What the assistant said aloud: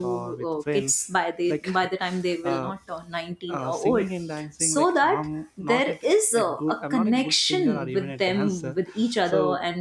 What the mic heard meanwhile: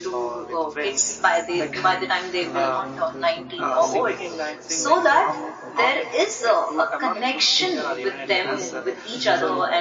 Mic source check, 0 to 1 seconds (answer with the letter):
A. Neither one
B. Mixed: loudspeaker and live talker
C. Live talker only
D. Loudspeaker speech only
D